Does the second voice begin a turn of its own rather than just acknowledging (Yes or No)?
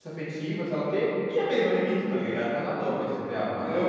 Yes